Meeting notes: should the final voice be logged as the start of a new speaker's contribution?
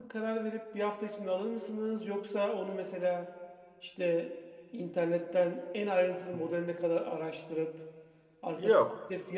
No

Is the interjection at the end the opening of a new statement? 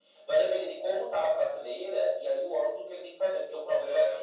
No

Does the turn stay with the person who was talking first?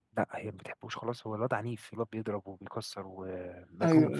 No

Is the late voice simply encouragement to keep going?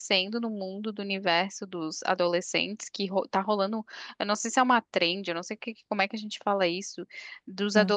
Yes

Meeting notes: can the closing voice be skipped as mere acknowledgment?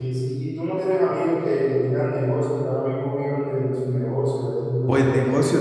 No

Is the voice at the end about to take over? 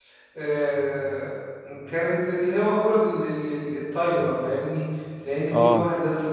No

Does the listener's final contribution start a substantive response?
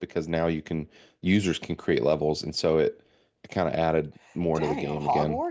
Yes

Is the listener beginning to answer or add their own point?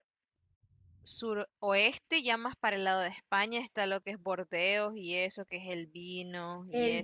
Yes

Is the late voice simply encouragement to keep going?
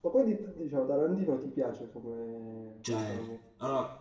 No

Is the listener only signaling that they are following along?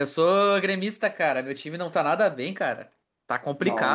No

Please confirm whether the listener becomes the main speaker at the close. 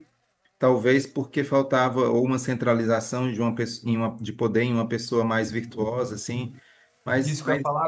Yes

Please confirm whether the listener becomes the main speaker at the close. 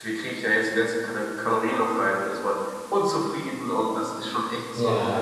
Yes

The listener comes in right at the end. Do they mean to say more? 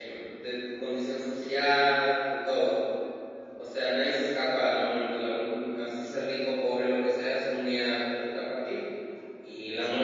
Yes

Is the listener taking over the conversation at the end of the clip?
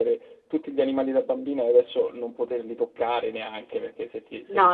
Yes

